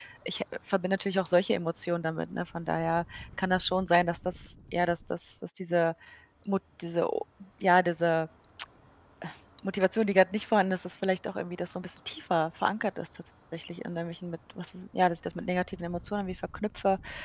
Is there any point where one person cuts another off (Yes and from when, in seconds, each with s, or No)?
No